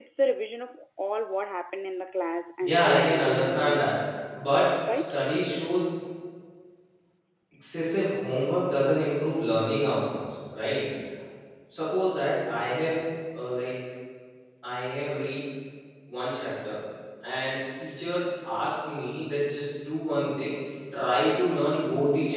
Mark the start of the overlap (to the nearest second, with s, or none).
3 s